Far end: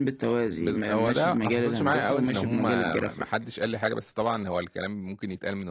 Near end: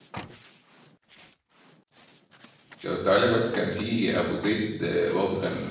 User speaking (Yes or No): Yes